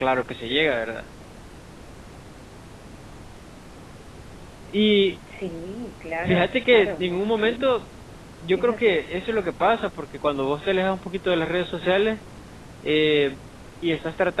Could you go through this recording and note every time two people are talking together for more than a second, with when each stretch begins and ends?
6.2-7.7

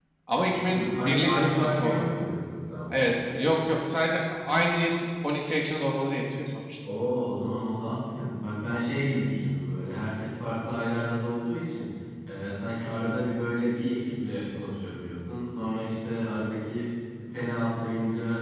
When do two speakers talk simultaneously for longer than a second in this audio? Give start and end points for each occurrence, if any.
0.7-2.1

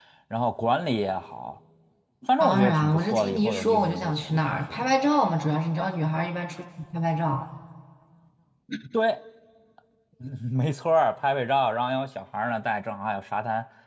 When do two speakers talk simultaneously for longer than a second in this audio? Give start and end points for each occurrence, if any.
2.4-4.8

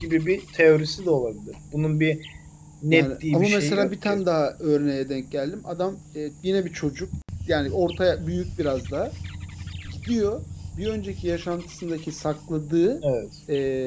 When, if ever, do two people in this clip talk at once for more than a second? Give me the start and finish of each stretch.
2.9-4.2

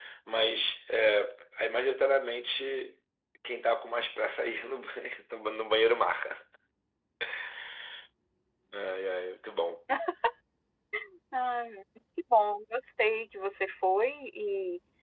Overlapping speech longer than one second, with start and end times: none

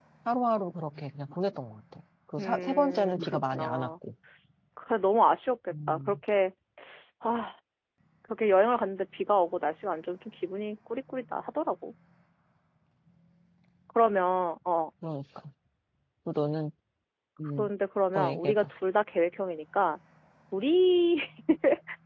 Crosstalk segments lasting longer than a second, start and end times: 2.4-3.9

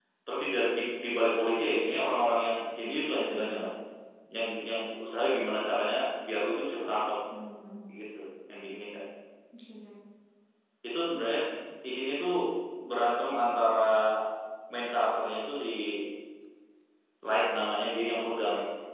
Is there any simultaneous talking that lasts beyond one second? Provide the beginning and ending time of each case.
none

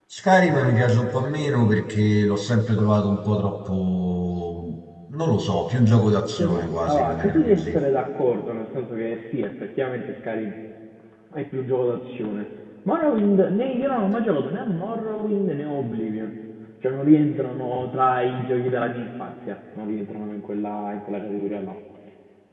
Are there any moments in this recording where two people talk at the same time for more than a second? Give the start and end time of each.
6.4-7.8

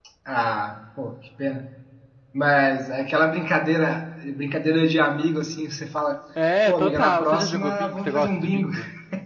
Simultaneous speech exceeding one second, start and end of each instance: 6.7-8.7

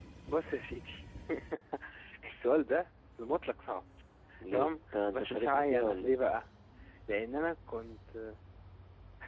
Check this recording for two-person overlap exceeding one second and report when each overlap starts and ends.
4.5-6.2

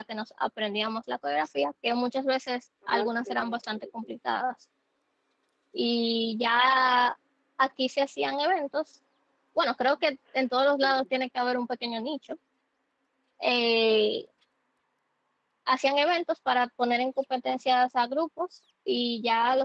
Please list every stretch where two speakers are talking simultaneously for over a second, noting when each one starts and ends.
2.9-4.1

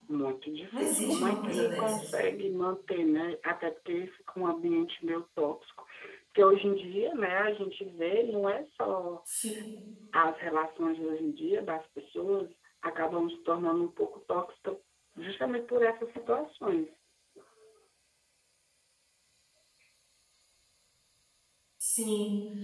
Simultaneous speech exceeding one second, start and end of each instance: 0.7-2.1

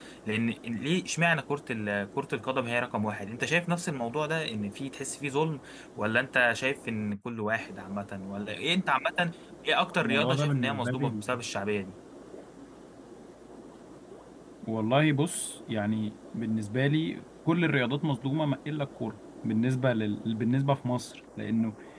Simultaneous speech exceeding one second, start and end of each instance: 10.0-11.2

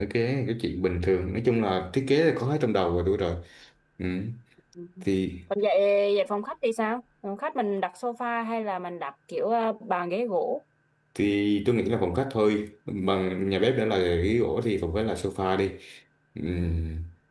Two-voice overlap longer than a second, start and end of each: none

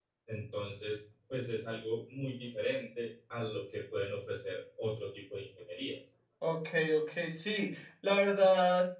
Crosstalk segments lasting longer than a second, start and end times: none

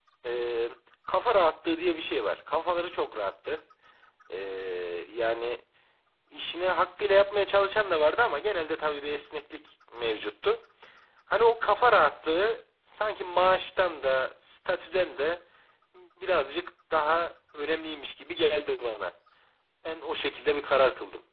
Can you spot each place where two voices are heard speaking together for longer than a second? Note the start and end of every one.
none

